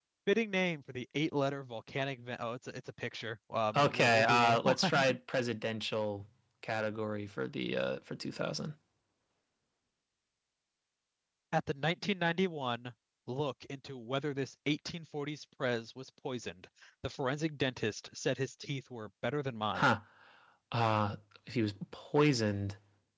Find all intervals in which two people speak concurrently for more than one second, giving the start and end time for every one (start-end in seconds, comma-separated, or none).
3.8-5.2